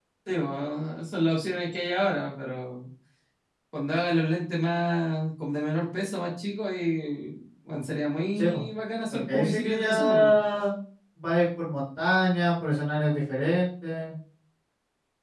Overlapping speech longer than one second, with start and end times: 9.1-10.3

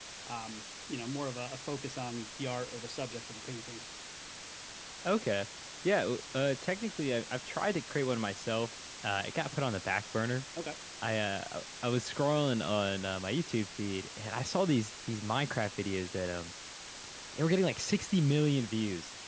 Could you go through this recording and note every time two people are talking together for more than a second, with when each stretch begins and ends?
none

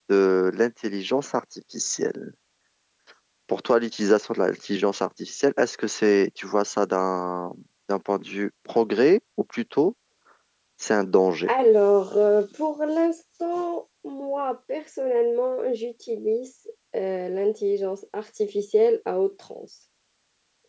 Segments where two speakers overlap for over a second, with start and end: none

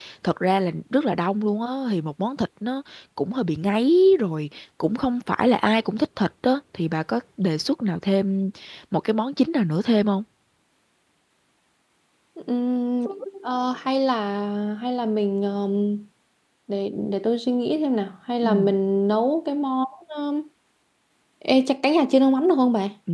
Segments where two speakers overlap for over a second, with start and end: none

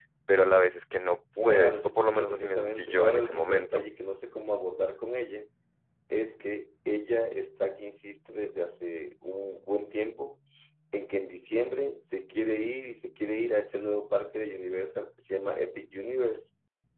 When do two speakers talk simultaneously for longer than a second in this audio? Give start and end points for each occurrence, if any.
1.4-3.8

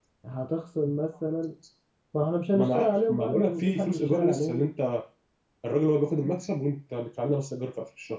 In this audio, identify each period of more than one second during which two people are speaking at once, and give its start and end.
2.5-4.6

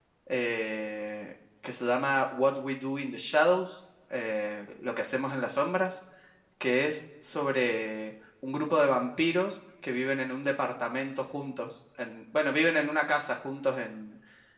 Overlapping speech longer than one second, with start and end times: none

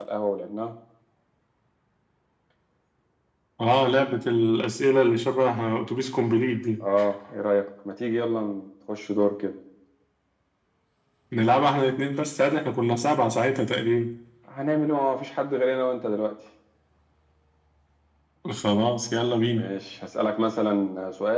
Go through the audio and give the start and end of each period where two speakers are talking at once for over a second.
none

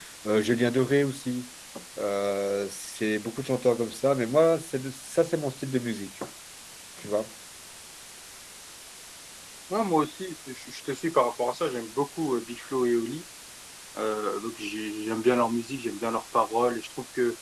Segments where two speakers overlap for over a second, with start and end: none

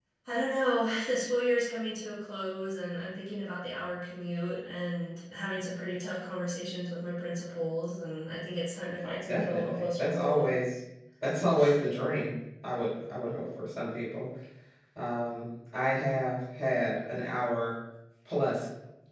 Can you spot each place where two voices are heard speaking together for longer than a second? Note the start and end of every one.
9.3-10.5

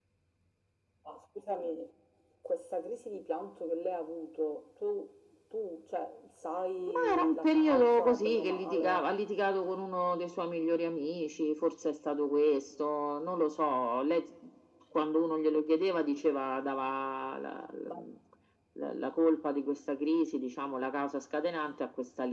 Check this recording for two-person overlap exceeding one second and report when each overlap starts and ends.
6.9-9.1

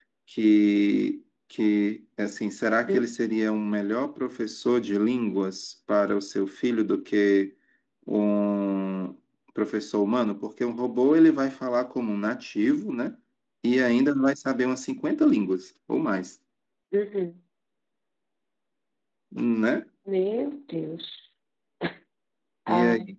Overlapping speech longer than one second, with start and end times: none

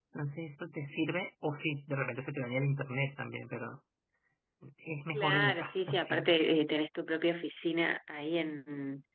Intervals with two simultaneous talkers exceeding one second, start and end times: 5.1-6.3

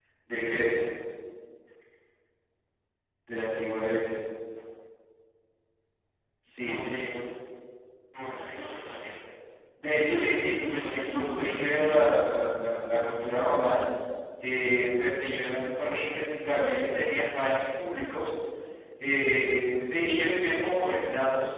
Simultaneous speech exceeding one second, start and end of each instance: 10.1-12.3

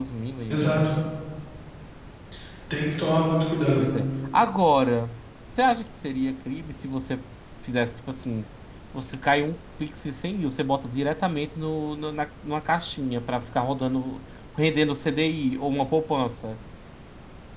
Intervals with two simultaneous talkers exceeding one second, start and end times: none

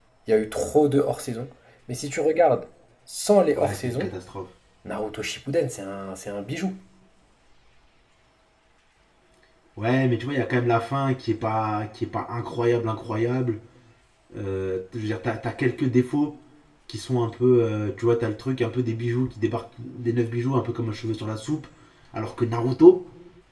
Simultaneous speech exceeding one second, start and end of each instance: none

